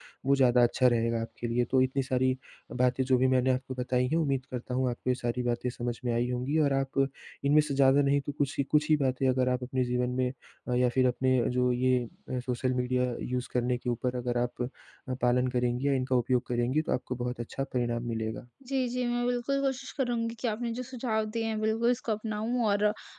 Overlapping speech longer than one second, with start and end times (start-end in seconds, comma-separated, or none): none